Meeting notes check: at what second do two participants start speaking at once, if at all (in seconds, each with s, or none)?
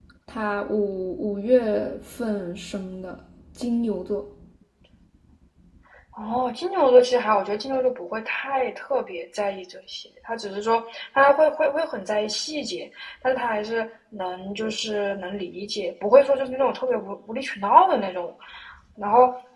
none